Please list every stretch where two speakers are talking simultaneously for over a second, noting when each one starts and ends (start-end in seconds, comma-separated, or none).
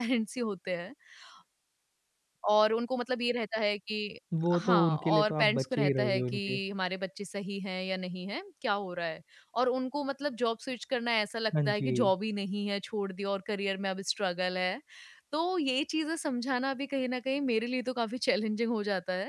4.6-6.6